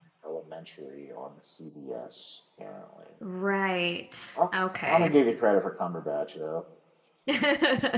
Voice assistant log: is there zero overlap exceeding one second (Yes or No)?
Yes